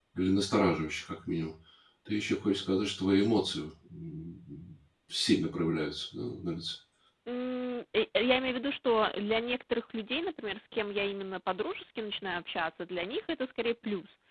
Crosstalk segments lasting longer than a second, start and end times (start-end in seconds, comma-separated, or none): none